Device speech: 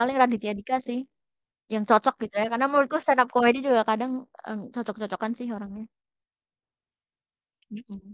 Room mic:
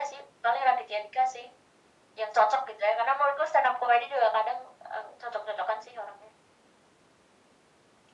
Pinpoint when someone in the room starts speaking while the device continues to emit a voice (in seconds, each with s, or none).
none